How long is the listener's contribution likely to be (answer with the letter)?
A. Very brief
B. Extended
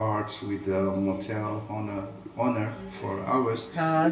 B